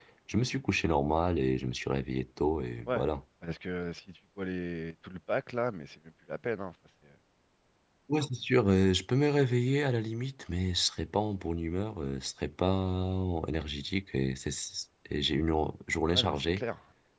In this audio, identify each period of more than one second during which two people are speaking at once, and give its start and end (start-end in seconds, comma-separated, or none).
none